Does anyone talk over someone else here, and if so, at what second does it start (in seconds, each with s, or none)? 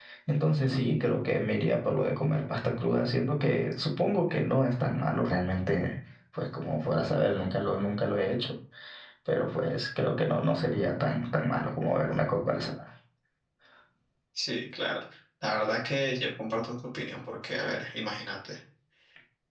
none